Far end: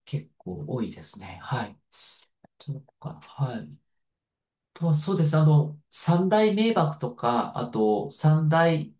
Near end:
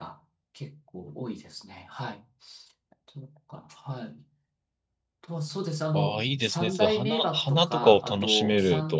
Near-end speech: present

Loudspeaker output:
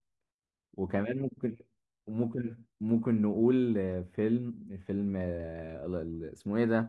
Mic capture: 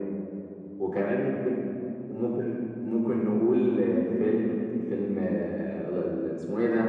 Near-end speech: none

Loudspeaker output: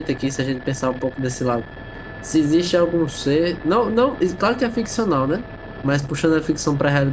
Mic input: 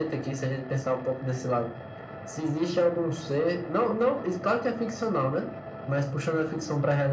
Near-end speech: none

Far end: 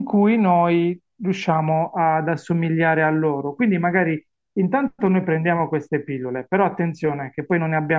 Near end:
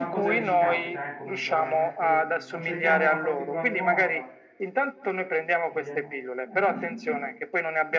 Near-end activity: present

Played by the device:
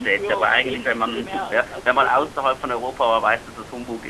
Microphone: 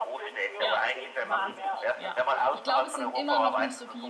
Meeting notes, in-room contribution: present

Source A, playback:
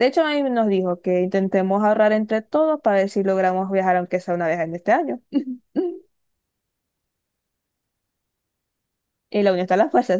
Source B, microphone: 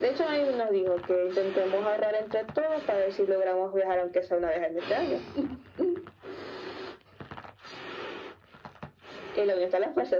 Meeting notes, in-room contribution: none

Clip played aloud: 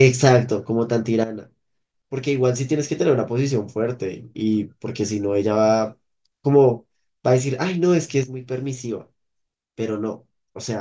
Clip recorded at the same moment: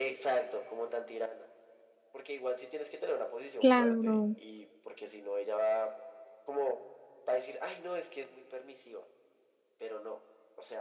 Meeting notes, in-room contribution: present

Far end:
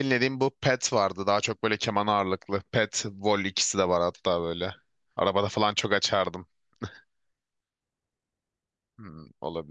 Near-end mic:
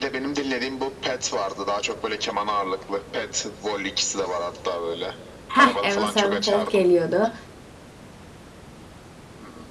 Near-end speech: present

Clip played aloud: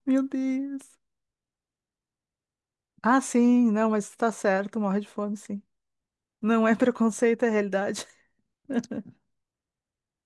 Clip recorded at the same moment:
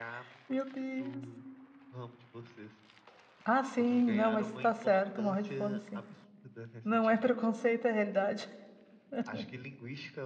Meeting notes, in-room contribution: present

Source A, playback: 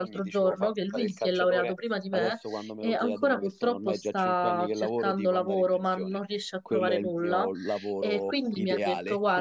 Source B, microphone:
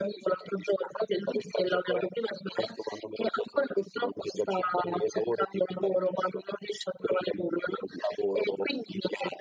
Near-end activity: none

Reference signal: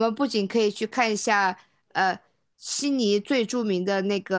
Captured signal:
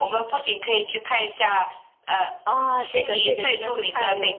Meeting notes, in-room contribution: present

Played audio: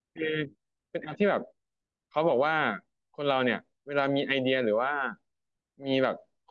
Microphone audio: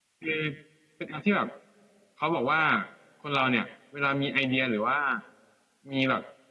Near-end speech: none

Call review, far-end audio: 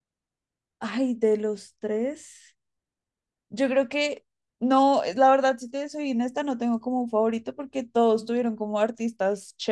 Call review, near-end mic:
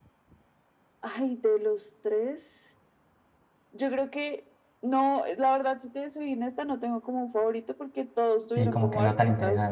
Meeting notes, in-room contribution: present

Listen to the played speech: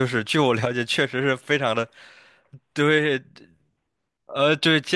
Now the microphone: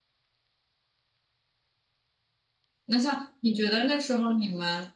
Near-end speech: present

